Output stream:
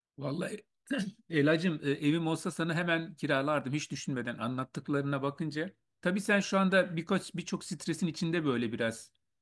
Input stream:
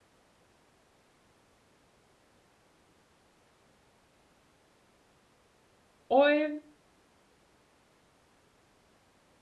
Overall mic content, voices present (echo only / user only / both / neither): user only